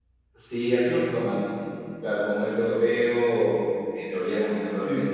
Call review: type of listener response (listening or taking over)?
listening